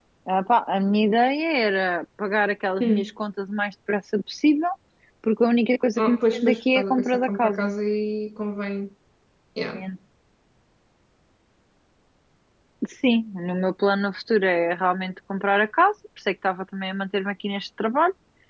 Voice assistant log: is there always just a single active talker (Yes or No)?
No